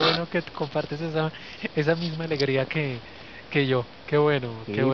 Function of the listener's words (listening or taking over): taking over